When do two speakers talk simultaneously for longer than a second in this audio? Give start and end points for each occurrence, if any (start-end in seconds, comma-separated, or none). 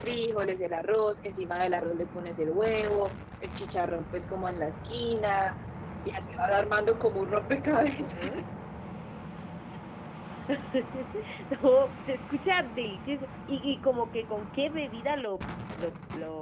none